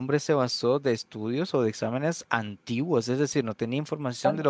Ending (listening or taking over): listening